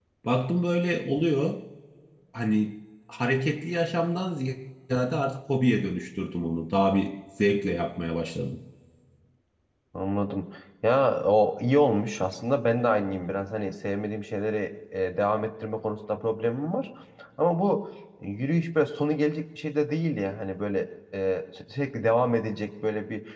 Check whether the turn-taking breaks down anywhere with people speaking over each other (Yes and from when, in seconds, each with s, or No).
No